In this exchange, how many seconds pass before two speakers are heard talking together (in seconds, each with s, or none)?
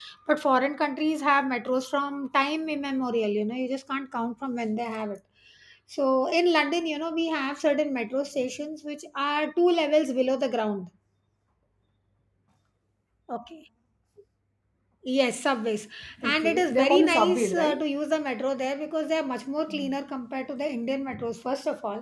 16.2 s